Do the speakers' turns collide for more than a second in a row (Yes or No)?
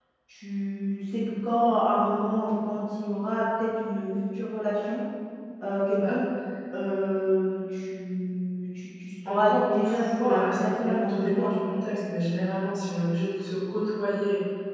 Yes